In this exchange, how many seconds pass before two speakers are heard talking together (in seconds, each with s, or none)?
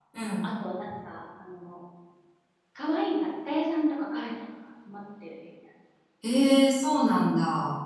none